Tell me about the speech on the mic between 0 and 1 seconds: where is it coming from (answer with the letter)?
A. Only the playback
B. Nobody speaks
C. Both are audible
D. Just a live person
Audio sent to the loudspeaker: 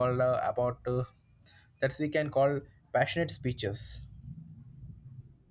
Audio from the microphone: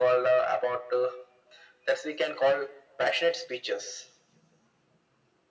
A